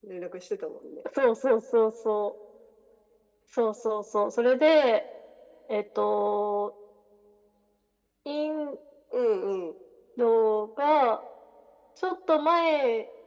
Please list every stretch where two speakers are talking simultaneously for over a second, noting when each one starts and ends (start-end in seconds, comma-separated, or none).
none